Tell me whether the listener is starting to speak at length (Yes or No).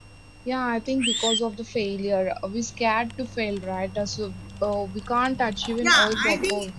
Yes